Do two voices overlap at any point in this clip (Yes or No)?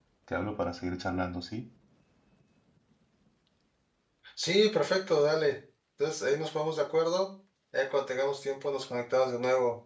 No